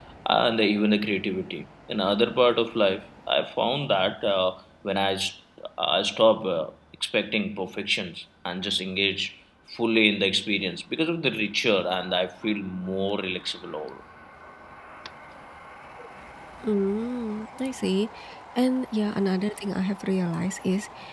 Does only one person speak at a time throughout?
Yes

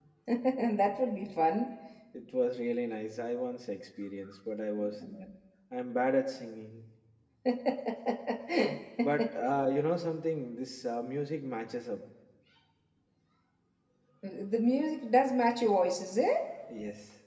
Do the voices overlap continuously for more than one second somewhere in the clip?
No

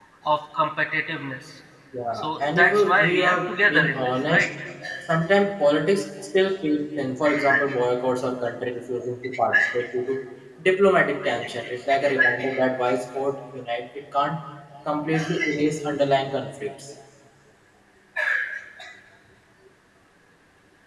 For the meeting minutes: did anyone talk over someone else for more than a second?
Yes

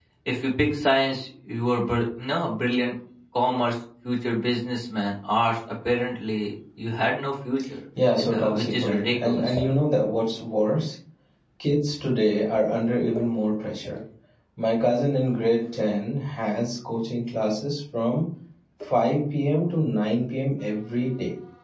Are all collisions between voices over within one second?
No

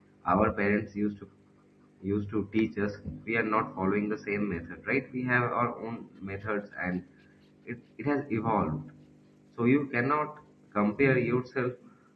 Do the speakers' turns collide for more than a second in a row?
No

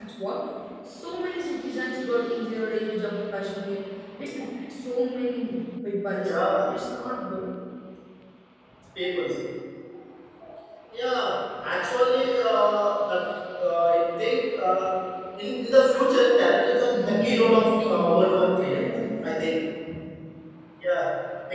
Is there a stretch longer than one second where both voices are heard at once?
Yes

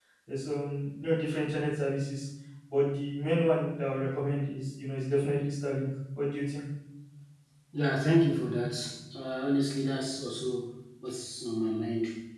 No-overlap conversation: Yes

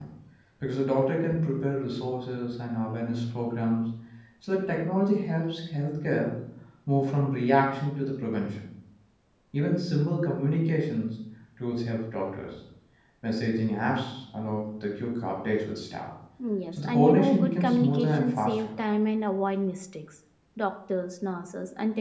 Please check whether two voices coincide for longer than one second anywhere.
Yes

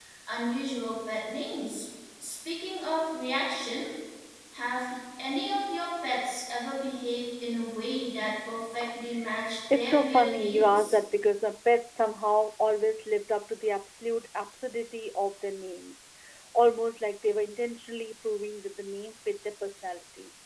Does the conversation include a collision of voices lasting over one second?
Yes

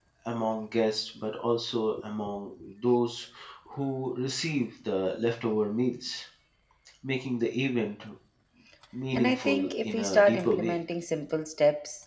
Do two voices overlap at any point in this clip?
Yes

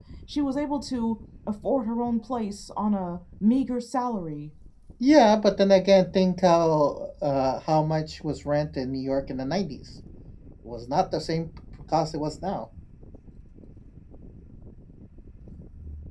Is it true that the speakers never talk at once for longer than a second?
Yes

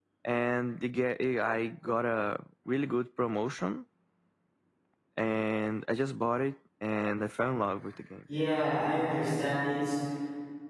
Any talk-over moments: No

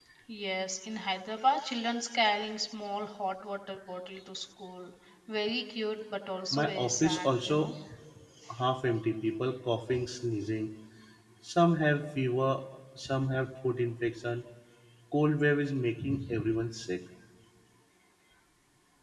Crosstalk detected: Yes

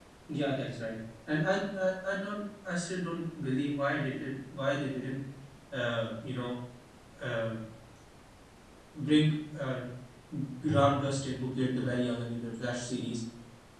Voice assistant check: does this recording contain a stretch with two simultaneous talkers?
No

